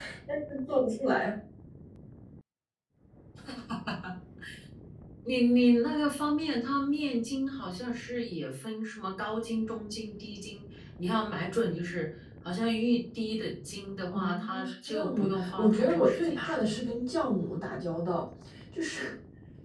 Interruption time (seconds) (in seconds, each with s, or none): 14.1 s